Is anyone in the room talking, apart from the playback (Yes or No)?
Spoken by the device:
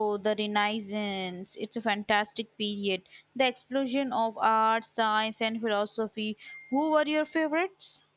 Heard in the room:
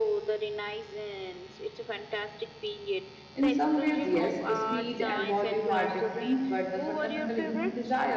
Yes